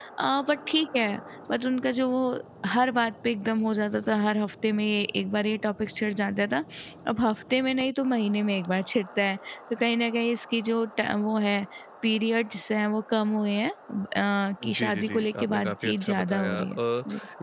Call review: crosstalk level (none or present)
present